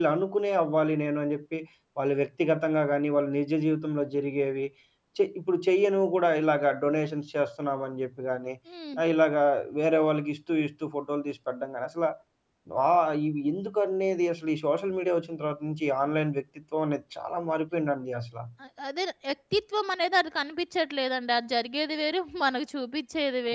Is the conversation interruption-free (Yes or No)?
Yes